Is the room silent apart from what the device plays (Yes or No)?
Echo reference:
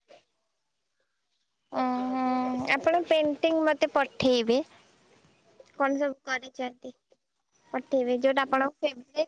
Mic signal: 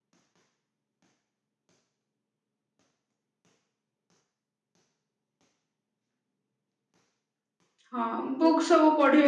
No